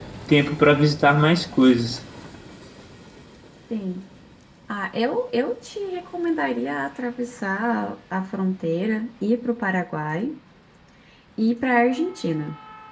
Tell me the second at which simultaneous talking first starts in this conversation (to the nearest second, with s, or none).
none